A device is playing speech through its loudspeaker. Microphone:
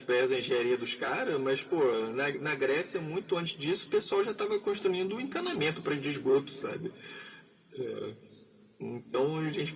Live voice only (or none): none